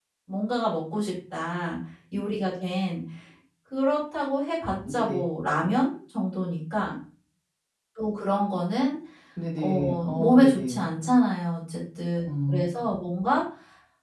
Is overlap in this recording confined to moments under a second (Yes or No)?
No